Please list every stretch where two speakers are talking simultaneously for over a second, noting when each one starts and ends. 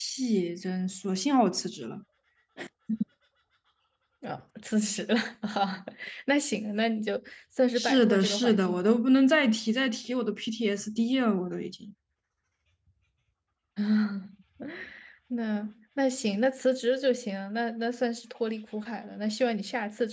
7.8-9.0

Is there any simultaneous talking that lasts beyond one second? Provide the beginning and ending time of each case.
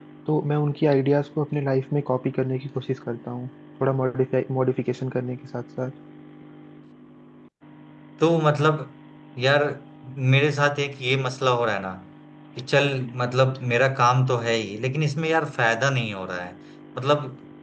none

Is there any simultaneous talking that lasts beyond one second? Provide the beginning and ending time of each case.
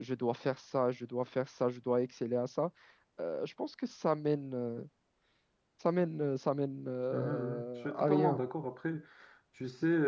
7.1-8.4

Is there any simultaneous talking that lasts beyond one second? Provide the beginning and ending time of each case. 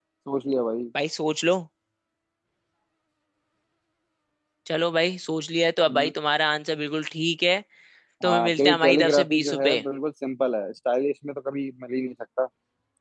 8.2-9.8

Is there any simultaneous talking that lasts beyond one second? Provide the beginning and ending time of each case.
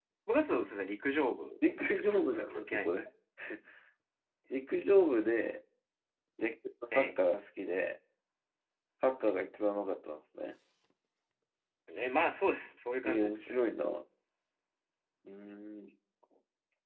1.9-3.1

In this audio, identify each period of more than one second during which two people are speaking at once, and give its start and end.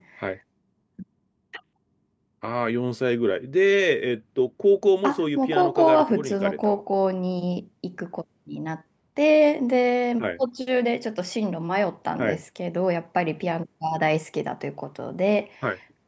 5.0-6.6

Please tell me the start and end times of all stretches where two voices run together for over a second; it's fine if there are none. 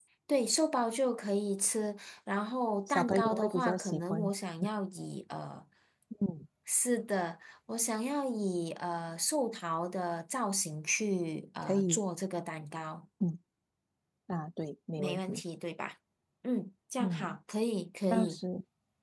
2.9-4.3

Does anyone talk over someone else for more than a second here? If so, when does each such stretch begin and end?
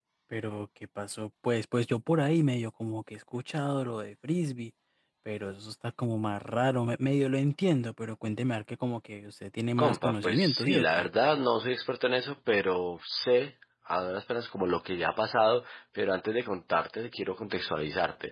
9.8-11.1

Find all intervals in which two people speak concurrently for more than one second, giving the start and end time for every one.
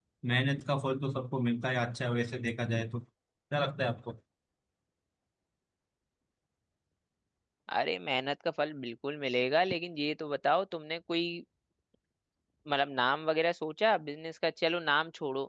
none

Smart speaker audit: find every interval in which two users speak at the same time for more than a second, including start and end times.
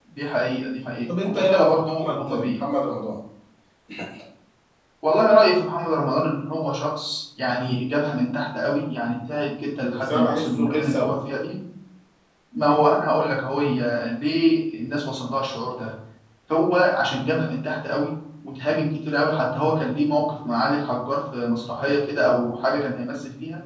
1.2-2.6, 9.9-11.2

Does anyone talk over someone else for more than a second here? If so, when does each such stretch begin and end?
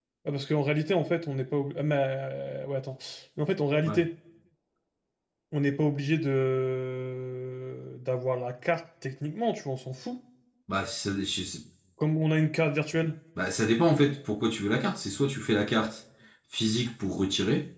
none

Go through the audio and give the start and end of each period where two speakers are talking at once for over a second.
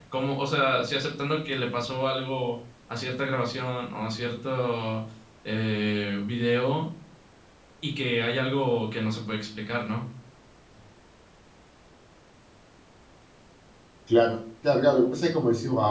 none

